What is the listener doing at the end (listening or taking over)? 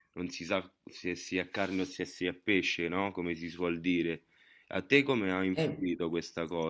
listening